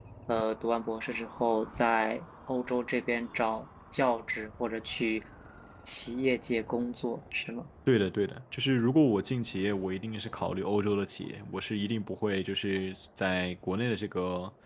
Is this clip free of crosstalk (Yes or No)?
Yes